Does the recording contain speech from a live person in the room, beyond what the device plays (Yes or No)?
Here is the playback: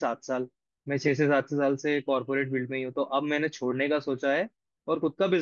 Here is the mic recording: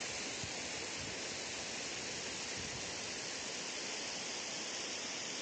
No